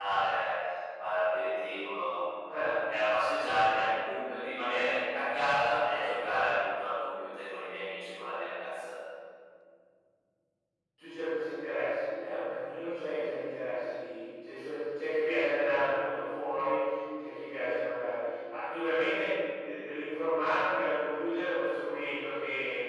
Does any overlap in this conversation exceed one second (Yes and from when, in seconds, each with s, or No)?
No